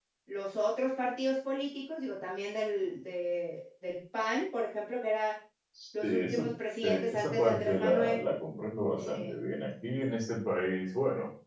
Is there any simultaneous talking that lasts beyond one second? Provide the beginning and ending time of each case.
6.8-8.2

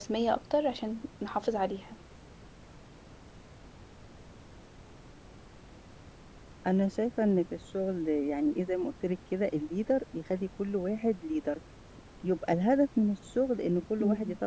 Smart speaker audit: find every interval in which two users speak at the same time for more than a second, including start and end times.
none

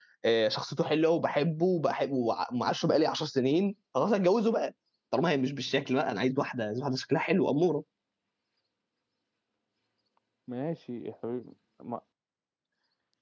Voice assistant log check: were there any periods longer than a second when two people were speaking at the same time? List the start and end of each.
none

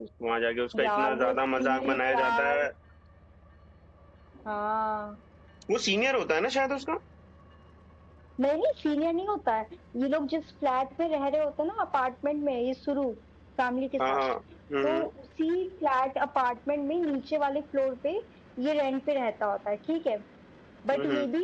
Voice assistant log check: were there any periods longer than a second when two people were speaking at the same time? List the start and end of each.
0.8-2.6

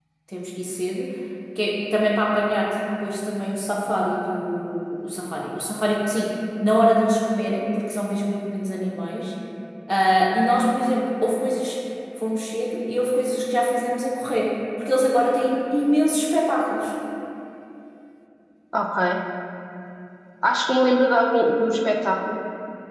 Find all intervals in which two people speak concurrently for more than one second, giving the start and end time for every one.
none

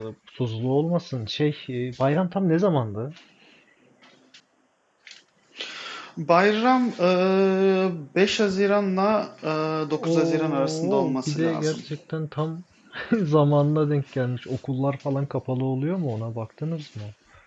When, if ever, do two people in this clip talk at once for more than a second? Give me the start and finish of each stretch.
9.9-11.8

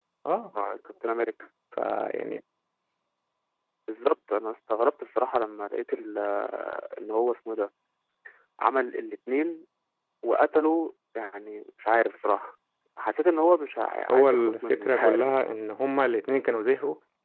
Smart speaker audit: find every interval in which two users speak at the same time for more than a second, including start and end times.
14.1-15.3

